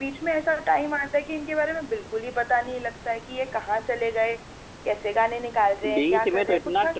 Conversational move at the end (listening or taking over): taking over